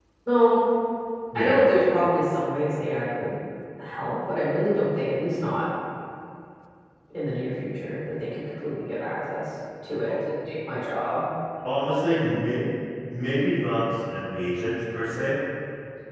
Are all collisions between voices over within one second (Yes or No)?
Yes